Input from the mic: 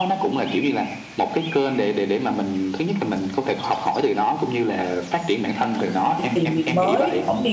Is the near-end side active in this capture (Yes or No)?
Yes